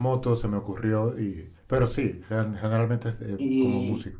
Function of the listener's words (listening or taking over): taking over